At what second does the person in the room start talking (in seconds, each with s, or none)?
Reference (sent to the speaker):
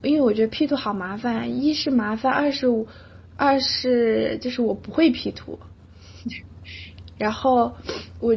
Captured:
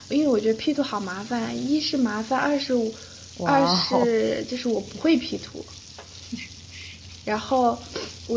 3.3 s